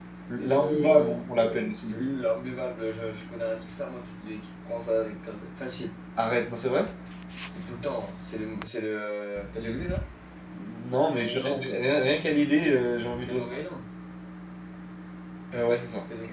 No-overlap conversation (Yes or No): No